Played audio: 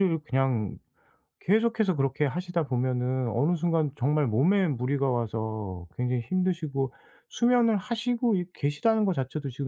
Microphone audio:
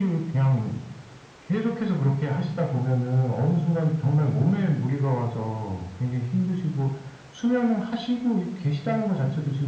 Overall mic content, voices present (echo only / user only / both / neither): echo only